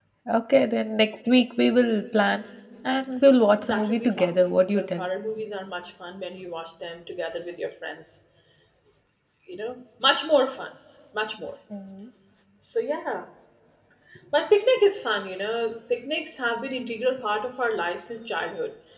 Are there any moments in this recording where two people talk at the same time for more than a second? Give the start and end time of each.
3.6-5.0

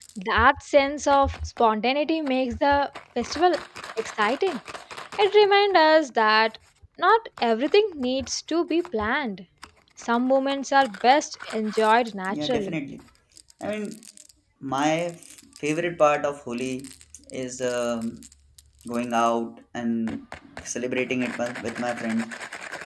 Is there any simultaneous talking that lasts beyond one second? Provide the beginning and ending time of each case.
none

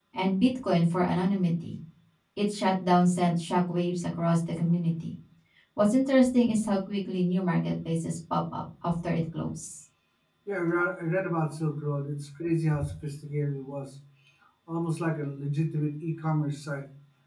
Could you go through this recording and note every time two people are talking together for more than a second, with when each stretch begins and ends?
none

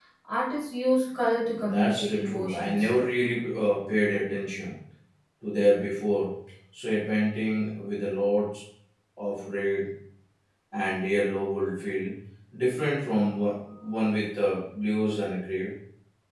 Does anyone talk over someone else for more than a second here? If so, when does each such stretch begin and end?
1.7-2.9

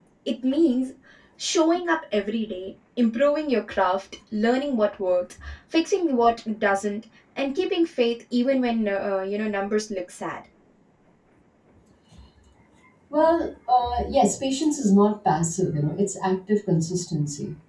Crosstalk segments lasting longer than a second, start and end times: none

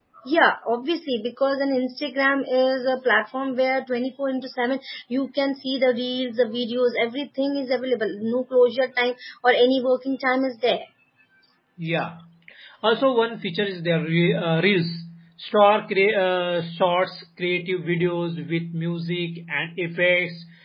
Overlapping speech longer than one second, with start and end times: none

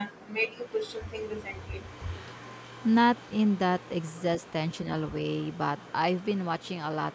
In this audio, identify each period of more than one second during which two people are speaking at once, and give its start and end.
none

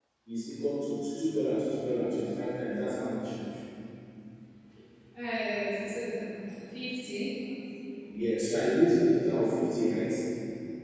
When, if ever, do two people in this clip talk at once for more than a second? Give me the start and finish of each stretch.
none

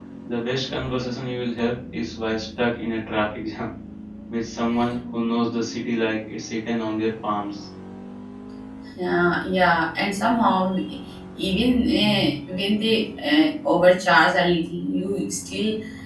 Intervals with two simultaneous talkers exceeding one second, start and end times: none

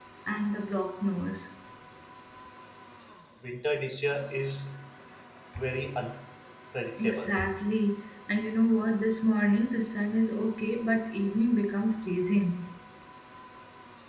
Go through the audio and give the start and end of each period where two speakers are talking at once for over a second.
none

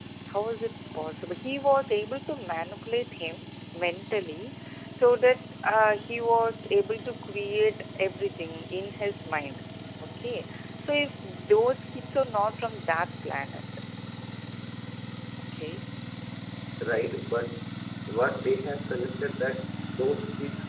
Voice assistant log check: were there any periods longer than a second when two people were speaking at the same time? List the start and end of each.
none

